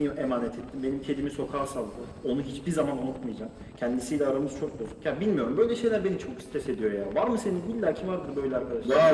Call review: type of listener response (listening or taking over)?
taking over